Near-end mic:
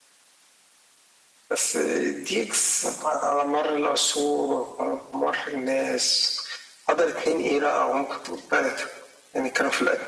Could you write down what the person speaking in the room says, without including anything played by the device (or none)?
none